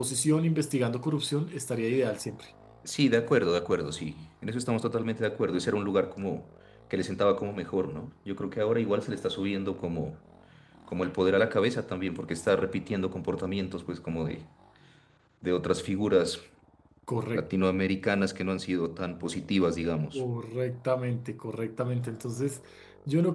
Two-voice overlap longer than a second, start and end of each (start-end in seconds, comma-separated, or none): none